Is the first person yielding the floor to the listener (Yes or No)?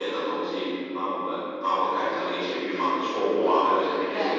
No